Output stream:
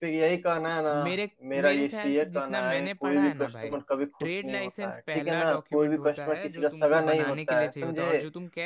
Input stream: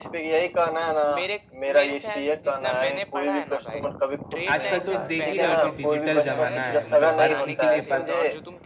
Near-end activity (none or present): present